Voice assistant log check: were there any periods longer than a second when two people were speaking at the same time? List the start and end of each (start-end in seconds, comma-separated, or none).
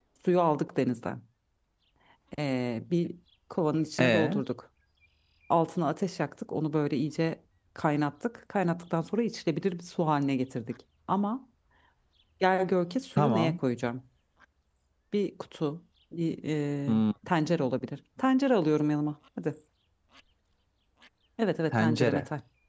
none